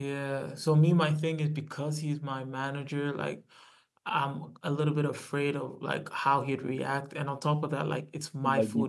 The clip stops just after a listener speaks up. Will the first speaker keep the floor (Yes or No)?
Yes